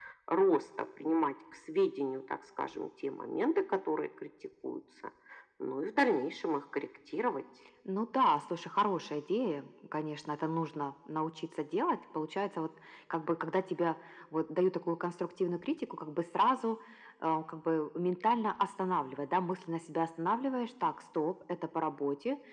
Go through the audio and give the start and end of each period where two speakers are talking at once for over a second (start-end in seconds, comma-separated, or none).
none